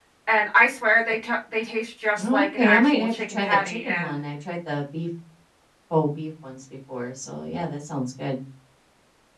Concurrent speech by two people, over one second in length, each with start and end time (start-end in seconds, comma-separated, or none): 2.2-4.2